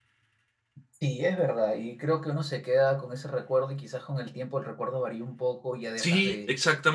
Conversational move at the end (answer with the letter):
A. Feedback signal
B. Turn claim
B